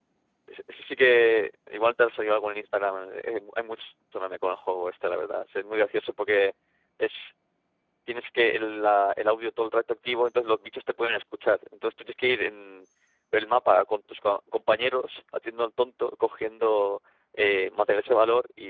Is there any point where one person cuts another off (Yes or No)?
No